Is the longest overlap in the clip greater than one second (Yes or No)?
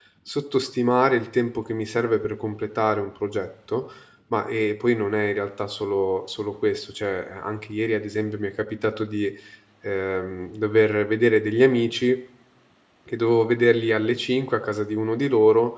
No